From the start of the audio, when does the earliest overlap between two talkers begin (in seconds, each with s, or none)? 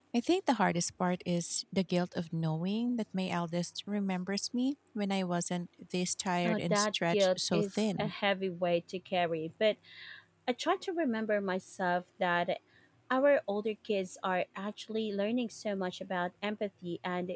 6.4 s